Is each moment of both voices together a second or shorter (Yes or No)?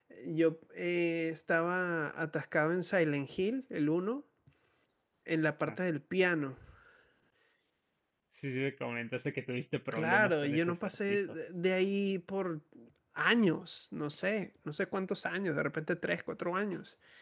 No